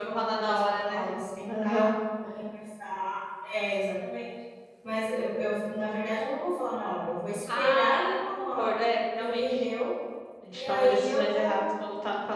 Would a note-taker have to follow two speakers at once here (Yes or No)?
Yes